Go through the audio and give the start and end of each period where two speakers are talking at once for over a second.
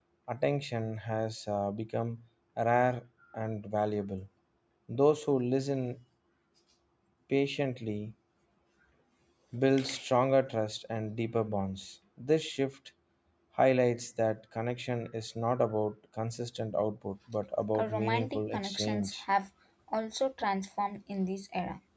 17.7-19.2

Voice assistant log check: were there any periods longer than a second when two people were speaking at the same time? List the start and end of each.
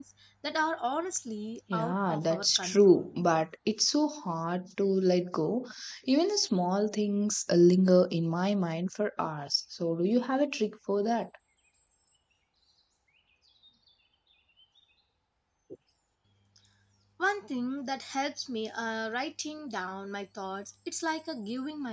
1.7-3.1

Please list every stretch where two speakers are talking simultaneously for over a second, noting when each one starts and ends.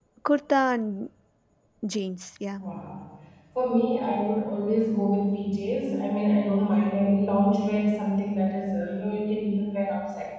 none

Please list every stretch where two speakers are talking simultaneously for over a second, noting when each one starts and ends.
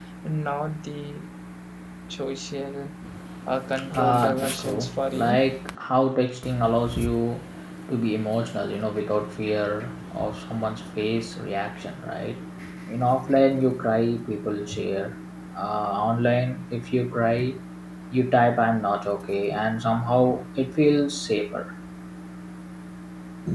3.9-5.4

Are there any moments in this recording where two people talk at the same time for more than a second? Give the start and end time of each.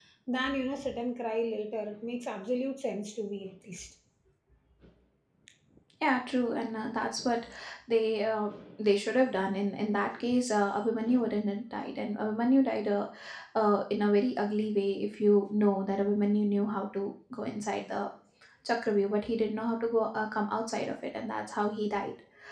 none

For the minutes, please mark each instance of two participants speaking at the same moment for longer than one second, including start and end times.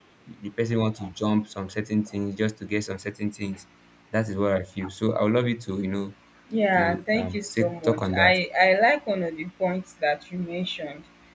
6.8-8.3

